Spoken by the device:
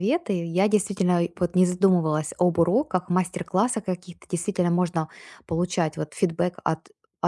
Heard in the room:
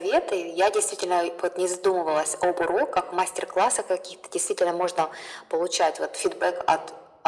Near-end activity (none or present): none